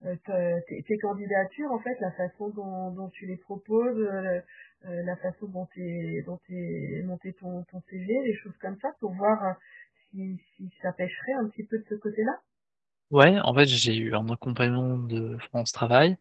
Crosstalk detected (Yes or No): No